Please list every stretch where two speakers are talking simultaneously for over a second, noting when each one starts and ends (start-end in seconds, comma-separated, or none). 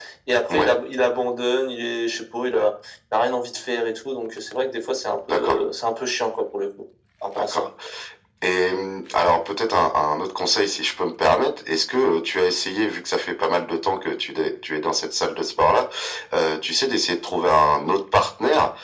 none